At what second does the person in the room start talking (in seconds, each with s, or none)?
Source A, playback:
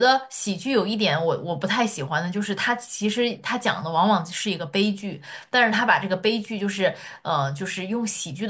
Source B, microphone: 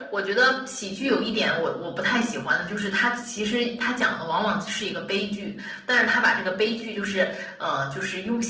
none